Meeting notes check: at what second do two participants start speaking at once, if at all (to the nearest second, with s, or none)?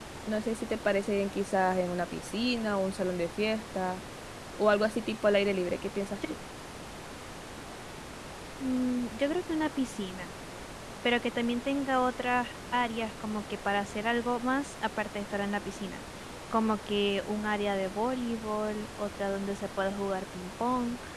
none